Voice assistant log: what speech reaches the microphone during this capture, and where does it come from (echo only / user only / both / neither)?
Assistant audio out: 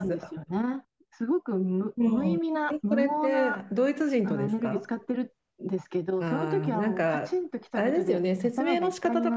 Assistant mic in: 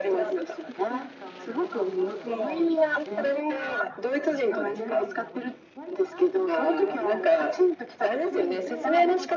both